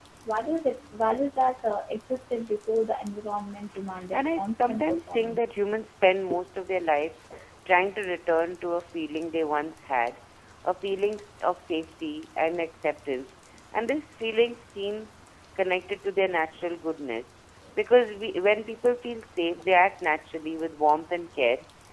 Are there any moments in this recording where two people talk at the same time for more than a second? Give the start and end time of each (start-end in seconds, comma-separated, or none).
4.1-5.4